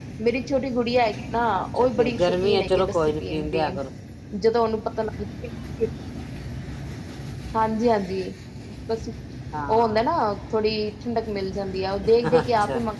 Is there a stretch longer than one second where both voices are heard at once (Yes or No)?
Yes